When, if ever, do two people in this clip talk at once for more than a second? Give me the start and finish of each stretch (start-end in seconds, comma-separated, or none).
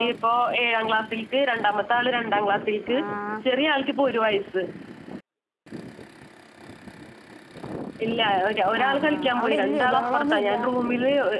8.8-10.5